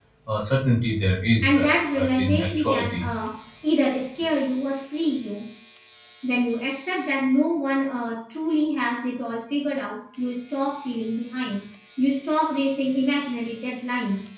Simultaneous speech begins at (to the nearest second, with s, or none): 1 s